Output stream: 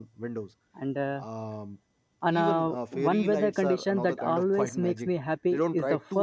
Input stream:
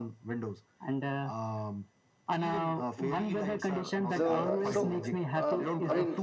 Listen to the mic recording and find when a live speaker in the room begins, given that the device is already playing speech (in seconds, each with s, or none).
4.1 s